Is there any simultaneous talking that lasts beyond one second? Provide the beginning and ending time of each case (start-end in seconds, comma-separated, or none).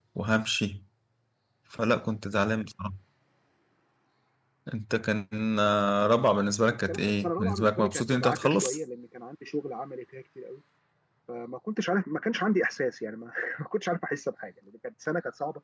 6.9-8.8